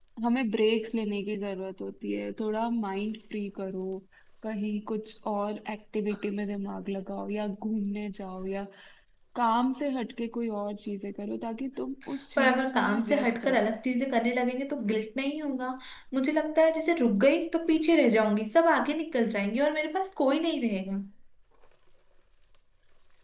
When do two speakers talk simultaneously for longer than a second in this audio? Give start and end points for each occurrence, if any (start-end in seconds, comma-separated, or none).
12.4-13.7